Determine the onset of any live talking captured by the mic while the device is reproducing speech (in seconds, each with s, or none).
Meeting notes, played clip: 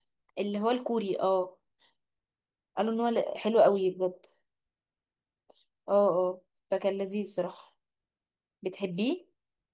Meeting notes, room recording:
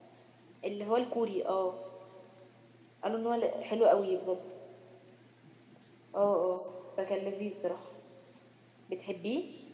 none